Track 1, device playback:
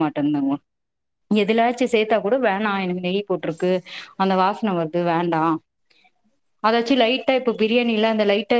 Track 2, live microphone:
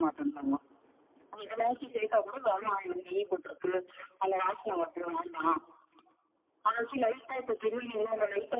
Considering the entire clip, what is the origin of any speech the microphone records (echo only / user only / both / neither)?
echo only